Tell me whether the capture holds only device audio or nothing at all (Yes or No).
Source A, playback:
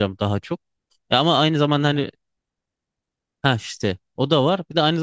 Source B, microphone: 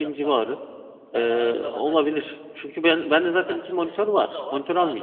No